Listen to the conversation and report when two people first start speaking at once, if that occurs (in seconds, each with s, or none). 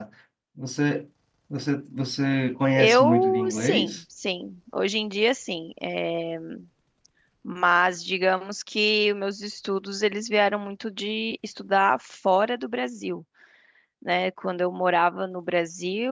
2.8 s